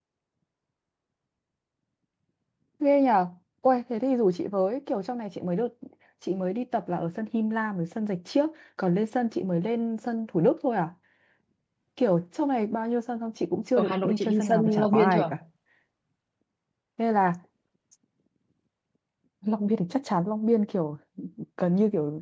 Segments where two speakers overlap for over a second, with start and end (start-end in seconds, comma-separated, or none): 13.8-15.3